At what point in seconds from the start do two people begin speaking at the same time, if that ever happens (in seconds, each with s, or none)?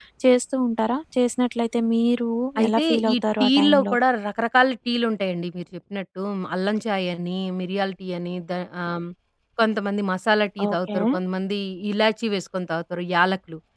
2.7 s